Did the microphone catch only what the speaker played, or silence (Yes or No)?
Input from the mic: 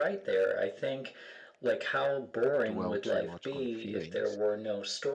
No